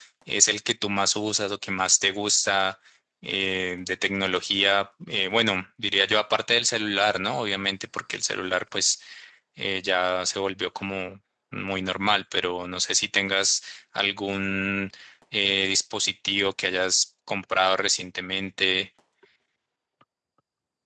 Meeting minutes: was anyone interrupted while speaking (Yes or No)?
No